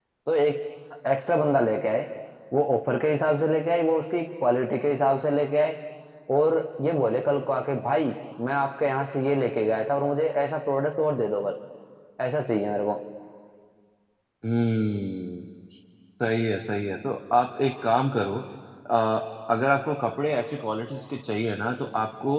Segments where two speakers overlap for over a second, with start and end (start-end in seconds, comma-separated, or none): none